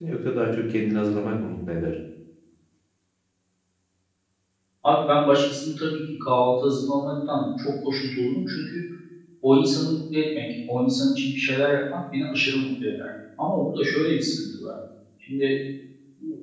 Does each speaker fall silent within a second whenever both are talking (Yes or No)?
Yes